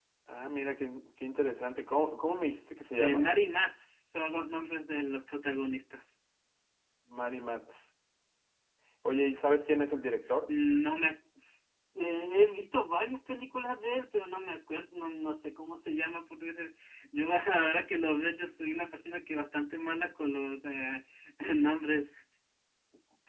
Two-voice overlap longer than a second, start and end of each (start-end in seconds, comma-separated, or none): none